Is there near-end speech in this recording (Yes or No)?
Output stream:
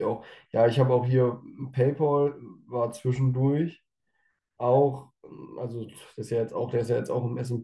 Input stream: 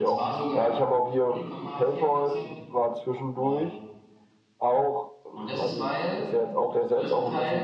Yes